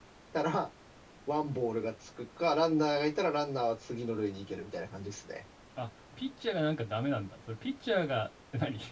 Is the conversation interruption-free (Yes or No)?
Yes